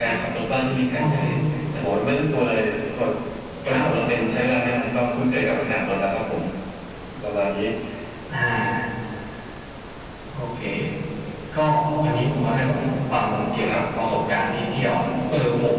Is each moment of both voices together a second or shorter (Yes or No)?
Yes